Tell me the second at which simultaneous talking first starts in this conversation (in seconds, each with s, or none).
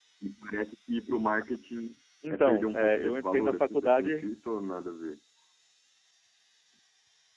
2.2 s